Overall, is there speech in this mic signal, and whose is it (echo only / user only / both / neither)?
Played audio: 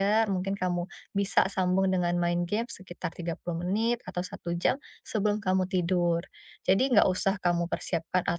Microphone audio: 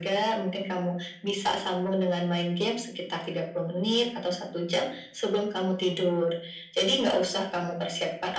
echo only